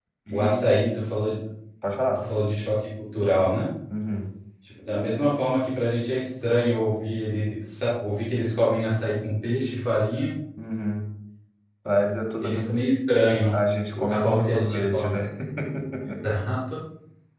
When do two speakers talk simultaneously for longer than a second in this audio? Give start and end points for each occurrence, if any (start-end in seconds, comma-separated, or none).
13.9-15.2